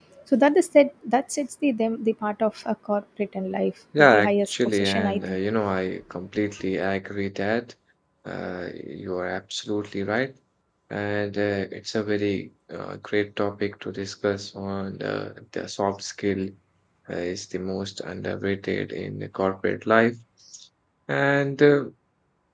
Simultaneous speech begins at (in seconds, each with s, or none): 3.9 s